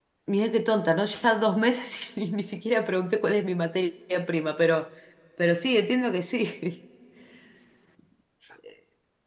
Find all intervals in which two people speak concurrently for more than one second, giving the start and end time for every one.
none

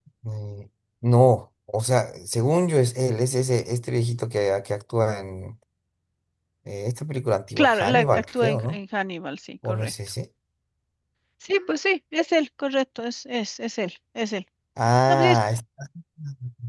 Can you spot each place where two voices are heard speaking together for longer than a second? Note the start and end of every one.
7.6-8.8

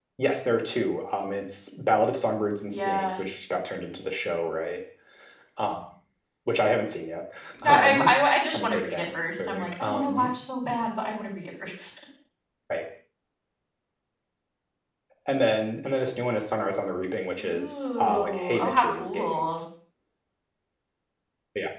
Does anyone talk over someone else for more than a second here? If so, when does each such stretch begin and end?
8.5-10.3, 17.4-19.6

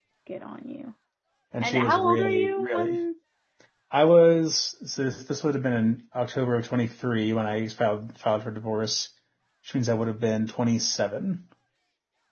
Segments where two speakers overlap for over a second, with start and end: 1.6-3.0

